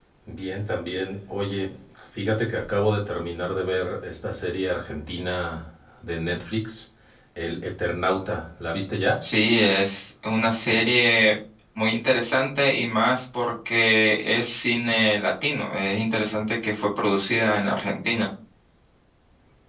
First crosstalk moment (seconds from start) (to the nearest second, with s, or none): none